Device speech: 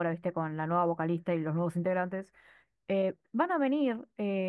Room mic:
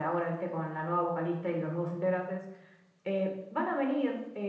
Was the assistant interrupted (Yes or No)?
No